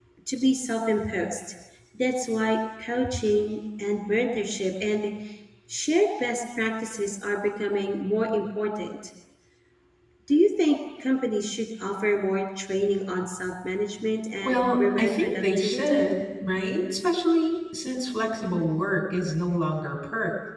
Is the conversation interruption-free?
No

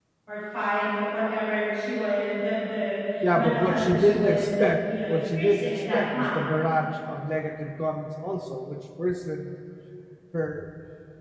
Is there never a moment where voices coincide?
No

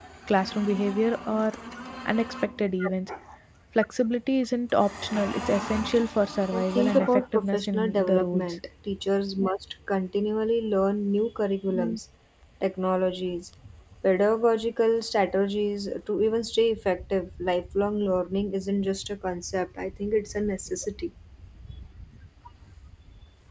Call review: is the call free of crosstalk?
No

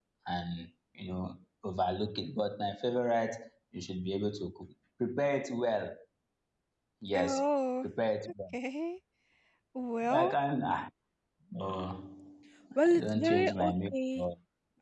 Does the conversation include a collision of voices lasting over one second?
Yes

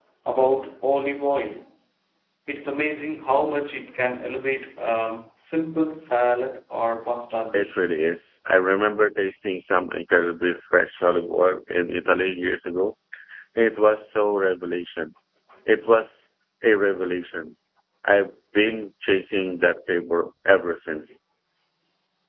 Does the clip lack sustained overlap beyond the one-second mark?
Yes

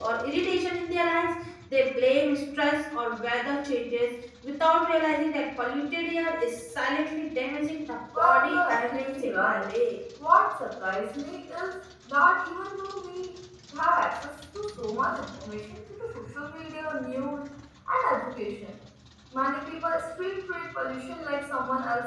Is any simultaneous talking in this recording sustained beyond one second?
Yes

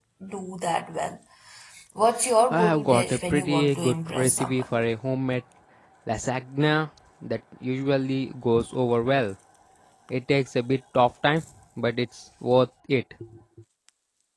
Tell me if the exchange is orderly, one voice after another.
No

